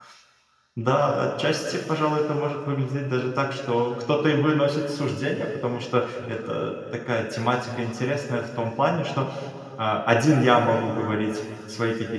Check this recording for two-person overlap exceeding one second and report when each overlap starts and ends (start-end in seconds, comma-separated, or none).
none